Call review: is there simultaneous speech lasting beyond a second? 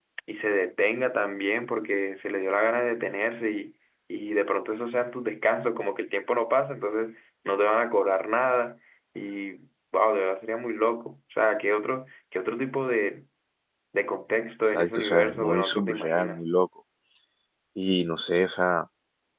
Yes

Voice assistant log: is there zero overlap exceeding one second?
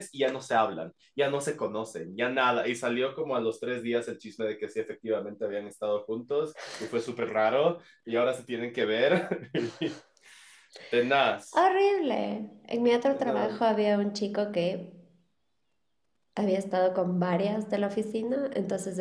Yes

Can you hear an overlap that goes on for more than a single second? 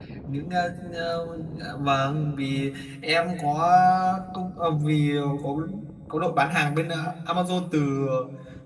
No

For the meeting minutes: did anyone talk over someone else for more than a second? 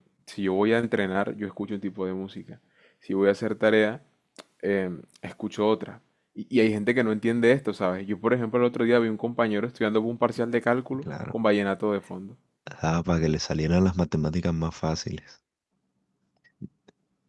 No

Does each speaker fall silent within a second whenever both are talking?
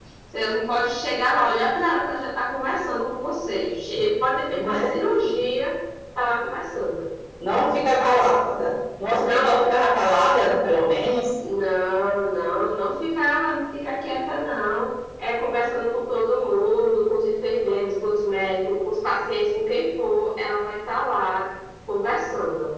Yes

